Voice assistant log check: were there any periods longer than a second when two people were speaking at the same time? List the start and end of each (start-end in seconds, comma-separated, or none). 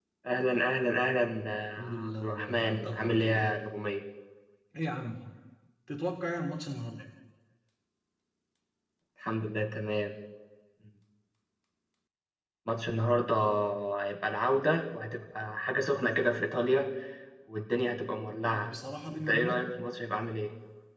1.8-3.5